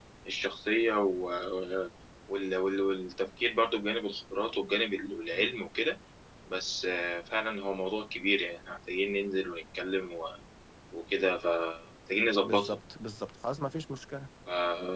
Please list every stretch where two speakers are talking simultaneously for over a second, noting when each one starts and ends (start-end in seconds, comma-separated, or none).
none